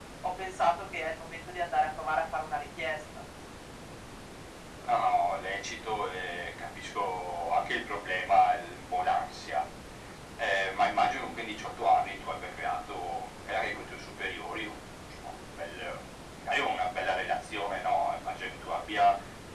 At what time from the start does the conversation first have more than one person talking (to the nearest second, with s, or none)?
none